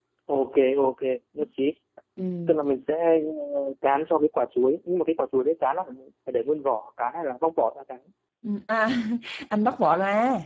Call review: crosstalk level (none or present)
none